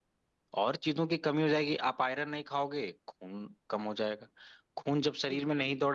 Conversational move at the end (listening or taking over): listening